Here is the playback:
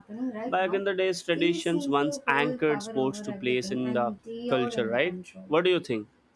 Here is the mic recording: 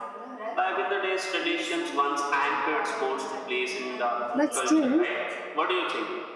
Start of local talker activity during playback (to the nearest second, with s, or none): 4 s